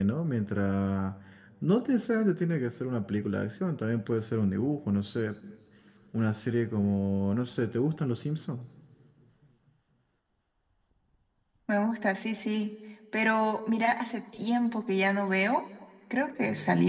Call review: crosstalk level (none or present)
none